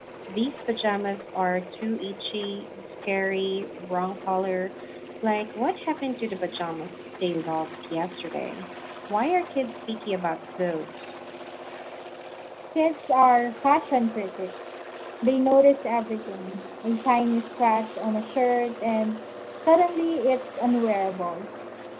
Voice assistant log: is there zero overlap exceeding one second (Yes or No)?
Yes